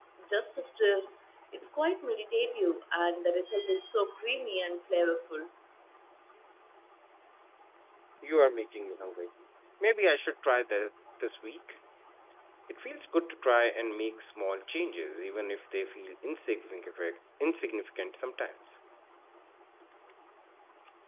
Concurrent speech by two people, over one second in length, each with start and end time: none

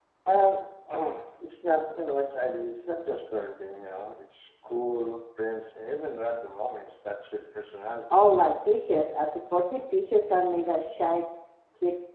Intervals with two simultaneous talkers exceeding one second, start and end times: none

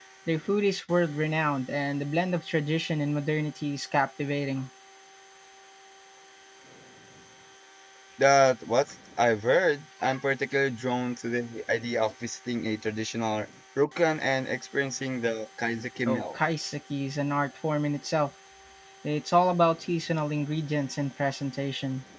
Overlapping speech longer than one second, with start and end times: none

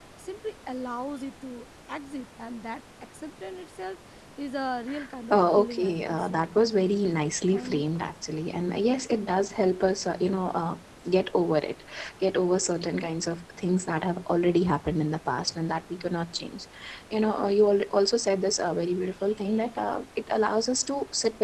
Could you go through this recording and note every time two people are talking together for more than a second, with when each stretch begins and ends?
5.3-6.5

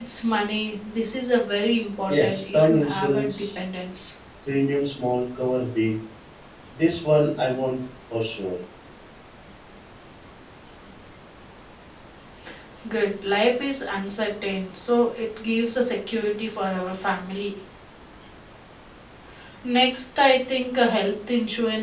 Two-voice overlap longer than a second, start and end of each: 2.1-3.4

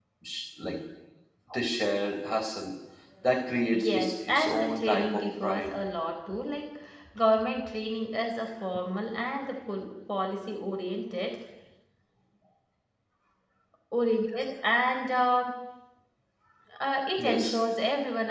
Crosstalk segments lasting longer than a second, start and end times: 3.8-5.7

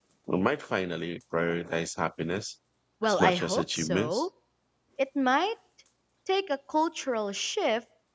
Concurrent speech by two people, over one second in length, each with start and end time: 3.0-4.2

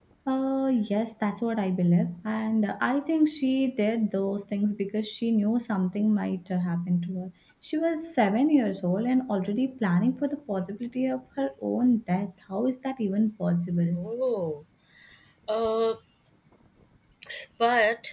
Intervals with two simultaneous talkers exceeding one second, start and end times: none

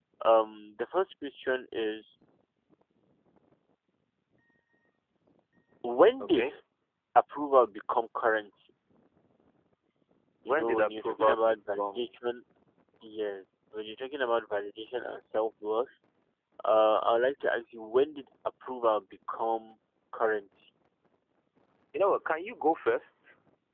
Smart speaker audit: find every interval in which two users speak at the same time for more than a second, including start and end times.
10.5-12.0

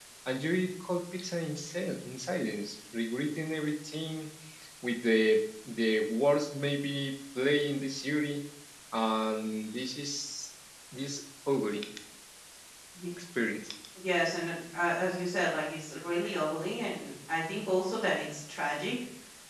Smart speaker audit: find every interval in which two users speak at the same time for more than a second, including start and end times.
none

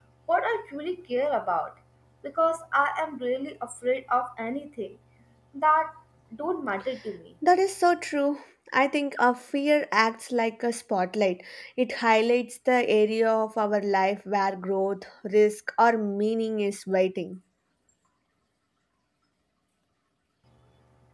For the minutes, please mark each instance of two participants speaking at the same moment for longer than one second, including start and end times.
none

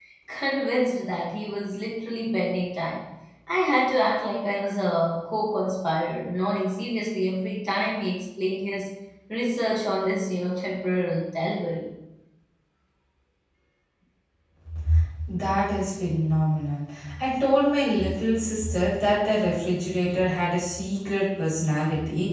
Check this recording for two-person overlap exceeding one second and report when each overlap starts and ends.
none

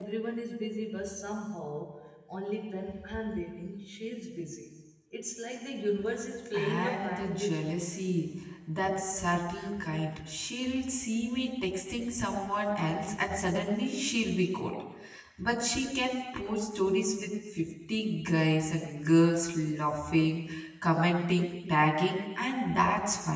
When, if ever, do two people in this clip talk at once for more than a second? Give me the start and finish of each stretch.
6.5-7.8

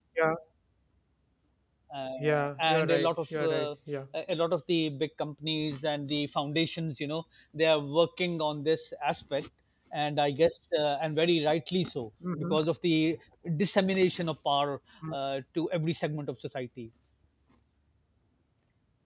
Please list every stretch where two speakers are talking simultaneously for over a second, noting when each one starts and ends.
2.2-3.7

